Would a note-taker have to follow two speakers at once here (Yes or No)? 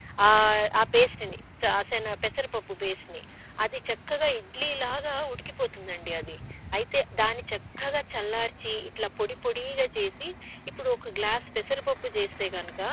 No